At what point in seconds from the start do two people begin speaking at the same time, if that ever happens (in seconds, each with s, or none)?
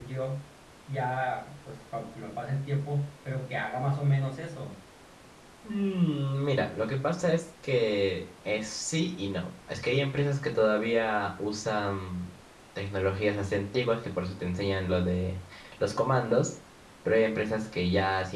none